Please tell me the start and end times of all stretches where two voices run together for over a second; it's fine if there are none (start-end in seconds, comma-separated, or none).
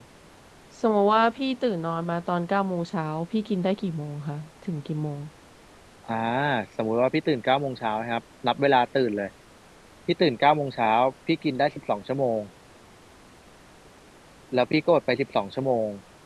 none